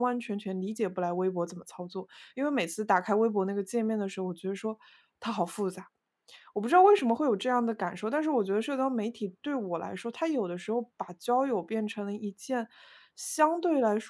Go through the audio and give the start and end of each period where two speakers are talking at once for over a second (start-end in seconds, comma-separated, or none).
none